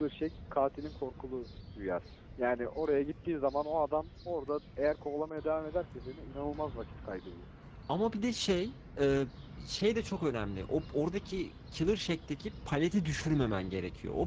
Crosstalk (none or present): none